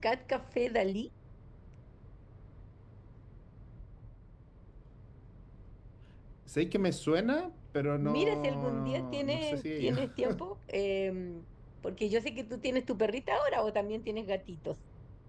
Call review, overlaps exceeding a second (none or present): present